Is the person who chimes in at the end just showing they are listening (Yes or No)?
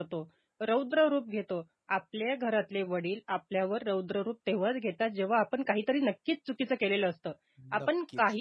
Yes